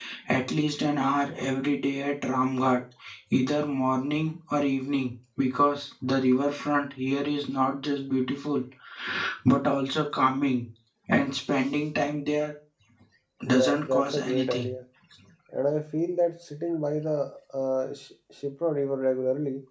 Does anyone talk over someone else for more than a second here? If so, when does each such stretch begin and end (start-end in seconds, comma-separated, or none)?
13.5-14.7